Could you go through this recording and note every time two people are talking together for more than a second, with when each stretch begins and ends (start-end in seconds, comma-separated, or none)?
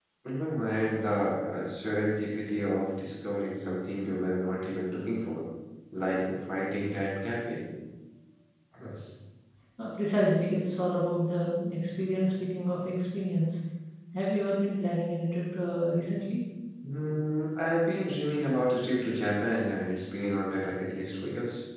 none